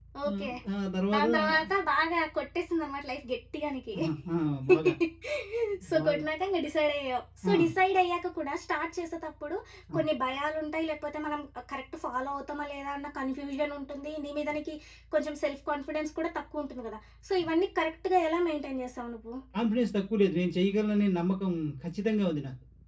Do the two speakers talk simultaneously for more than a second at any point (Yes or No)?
No